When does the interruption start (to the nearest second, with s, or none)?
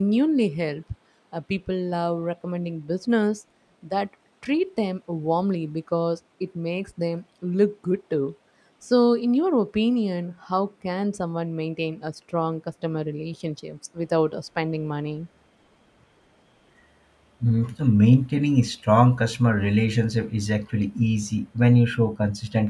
none